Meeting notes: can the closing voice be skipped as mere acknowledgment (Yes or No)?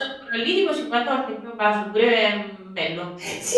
No